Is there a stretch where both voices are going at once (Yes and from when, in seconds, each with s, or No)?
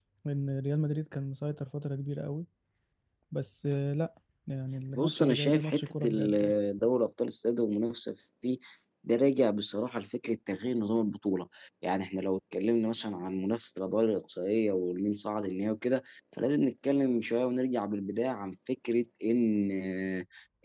Yes, from 5.0 s